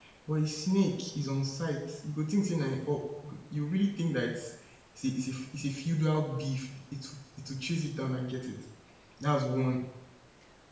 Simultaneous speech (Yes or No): No